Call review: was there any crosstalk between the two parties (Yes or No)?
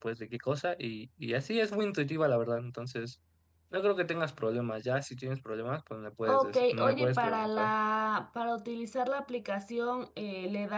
Yes